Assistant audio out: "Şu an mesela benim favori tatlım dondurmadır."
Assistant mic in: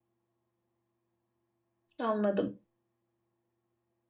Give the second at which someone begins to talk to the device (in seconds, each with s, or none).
2.0 s